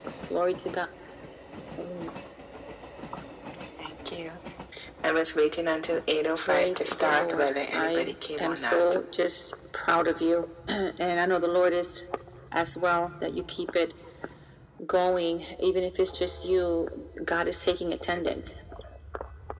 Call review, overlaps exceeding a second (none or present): present